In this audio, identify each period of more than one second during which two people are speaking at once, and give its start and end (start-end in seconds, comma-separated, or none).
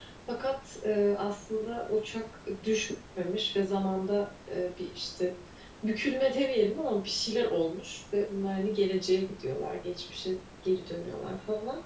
none